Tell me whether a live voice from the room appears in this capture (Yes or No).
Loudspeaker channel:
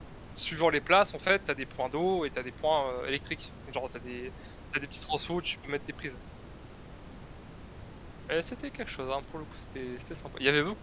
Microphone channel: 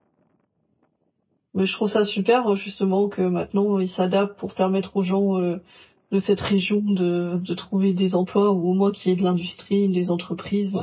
Yes